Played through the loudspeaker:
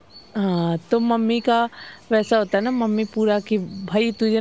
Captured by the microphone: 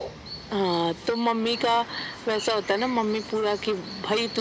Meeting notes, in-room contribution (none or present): none